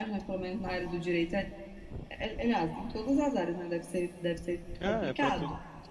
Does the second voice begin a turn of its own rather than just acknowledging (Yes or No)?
Yes